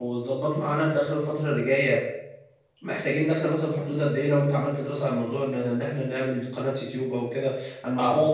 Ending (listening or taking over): taking over